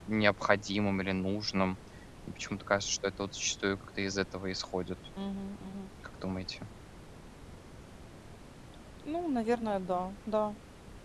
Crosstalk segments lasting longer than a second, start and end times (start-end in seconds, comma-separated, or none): none